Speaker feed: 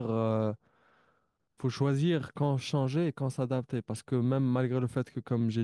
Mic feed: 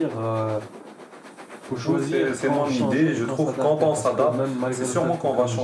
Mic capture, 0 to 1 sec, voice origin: echo only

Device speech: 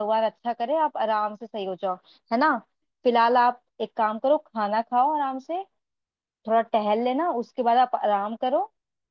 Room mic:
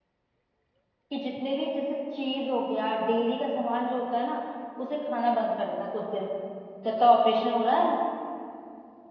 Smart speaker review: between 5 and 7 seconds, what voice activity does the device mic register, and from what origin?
user only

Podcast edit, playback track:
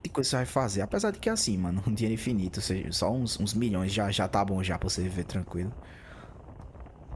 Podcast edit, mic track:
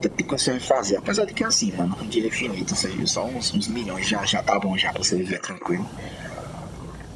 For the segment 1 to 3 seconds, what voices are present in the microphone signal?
echo only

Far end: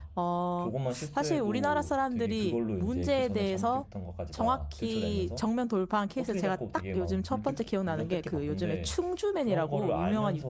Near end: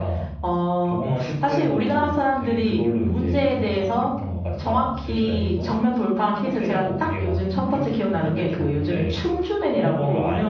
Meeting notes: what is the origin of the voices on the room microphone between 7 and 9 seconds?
echo only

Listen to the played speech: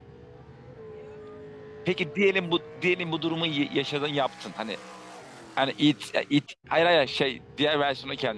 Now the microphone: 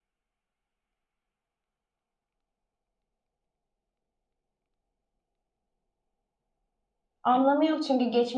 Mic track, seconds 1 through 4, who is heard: neither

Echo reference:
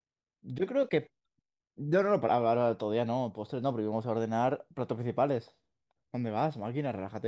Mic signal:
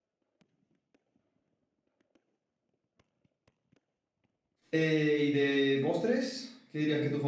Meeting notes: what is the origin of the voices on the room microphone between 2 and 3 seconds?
neither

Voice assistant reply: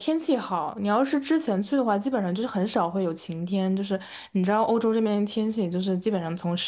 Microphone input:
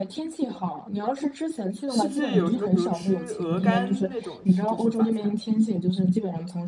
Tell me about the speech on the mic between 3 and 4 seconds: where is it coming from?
both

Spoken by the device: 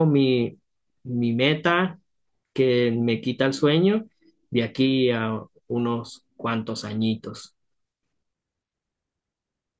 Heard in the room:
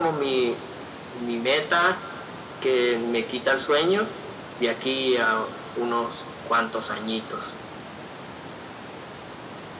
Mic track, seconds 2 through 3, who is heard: echo only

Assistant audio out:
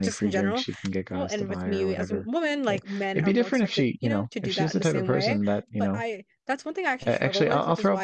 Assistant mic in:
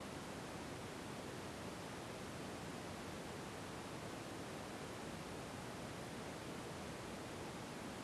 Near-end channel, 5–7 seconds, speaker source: neither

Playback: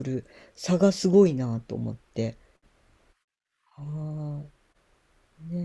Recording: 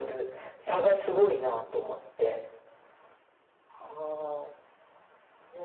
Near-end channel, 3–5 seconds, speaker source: echo only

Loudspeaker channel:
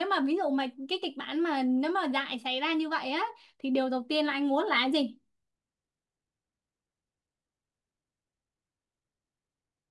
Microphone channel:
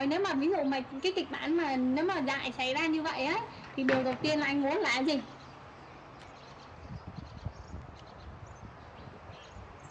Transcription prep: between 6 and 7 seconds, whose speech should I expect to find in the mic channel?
neither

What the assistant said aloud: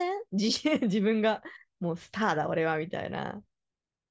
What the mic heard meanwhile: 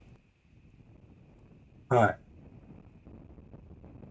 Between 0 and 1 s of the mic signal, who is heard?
neither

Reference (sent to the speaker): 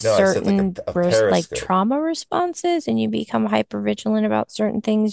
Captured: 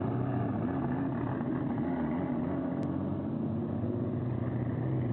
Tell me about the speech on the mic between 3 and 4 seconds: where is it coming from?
neither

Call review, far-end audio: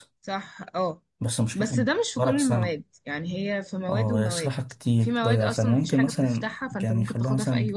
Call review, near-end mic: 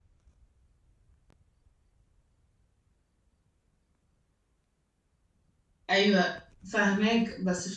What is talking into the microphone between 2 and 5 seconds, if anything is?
neither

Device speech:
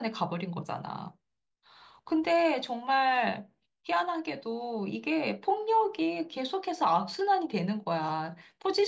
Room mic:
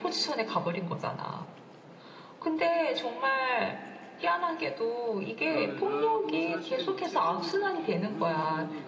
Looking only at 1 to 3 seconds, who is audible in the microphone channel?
echo only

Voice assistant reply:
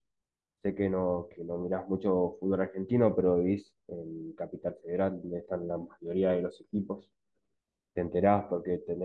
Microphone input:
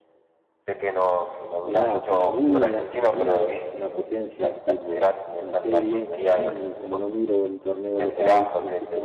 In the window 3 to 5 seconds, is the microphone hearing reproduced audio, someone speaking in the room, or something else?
both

